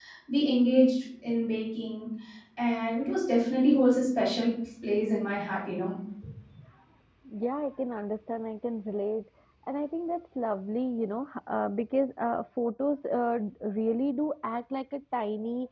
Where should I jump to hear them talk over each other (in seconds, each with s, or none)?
none